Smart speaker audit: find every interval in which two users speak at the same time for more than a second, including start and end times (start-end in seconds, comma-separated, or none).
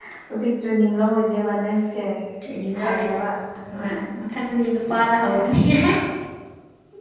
none